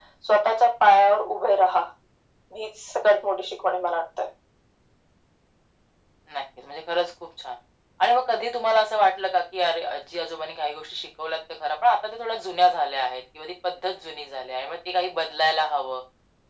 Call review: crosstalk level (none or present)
none